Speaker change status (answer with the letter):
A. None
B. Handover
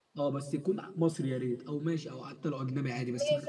B